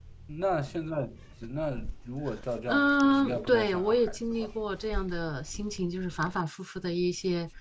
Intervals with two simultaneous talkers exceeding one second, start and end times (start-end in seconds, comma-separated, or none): 2.7-4.5